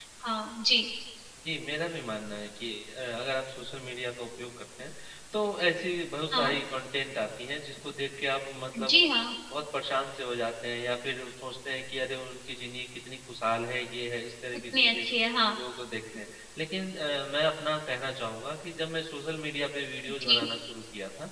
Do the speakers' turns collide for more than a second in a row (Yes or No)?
No